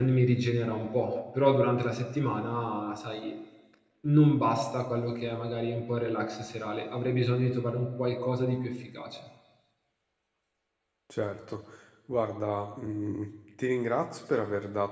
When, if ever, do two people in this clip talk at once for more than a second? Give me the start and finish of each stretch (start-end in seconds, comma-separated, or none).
none